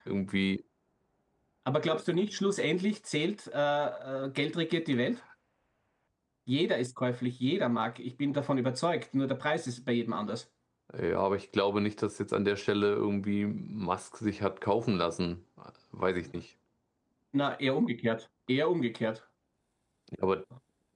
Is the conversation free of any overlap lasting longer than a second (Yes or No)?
Yes